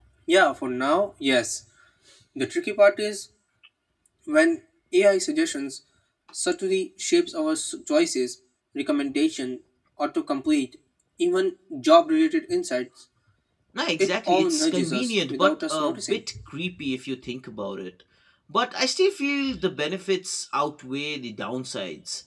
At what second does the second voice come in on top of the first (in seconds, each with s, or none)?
14.0 s